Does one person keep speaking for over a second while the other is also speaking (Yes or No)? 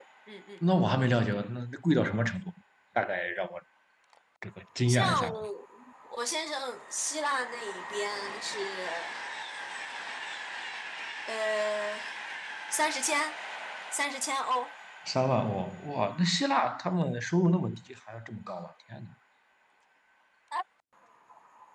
No